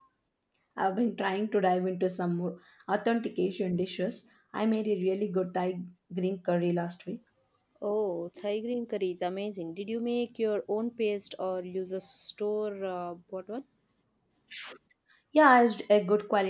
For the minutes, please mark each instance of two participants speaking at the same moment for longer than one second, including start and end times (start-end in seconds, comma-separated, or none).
none